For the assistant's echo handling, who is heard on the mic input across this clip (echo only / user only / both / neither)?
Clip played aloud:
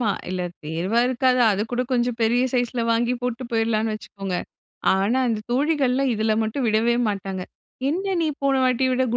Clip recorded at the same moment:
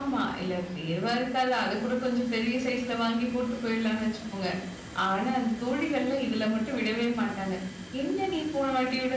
echo only